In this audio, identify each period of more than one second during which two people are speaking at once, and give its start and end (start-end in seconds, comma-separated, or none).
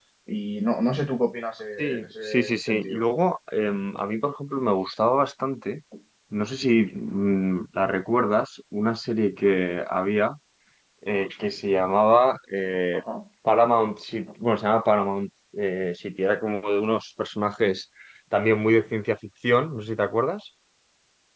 1.8-3.0